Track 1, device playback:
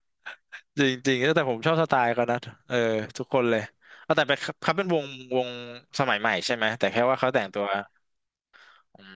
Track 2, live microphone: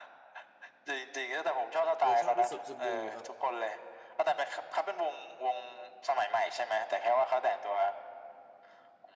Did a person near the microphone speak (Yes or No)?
Yes